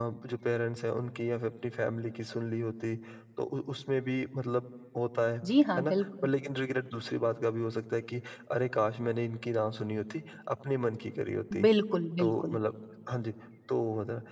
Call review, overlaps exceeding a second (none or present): none